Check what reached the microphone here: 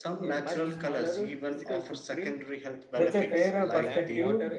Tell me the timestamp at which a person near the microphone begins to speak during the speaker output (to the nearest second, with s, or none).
3 s